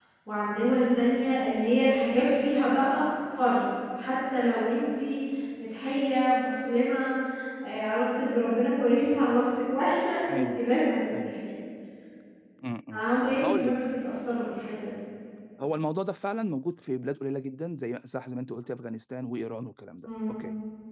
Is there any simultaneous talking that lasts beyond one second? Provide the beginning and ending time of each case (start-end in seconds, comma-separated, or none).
none